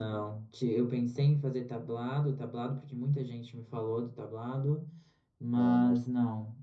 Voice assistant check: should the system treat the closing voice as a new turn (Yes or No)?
No